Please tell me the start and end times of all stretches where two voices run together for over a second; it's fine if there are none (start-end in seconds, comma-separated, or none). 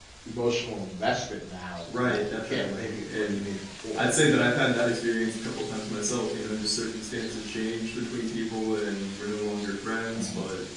2.0-3.4